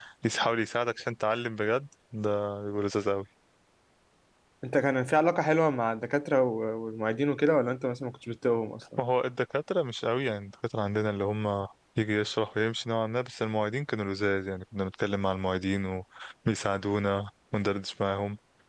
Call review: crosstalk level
none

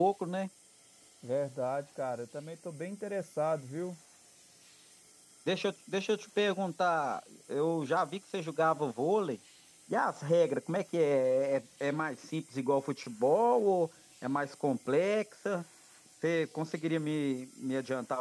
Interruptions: none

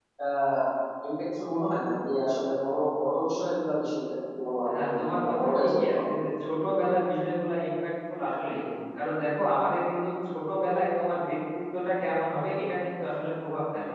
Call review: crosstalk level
present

